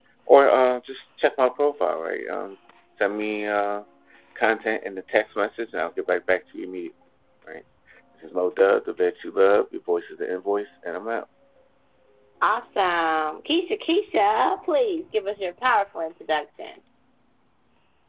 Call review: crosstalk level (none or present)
none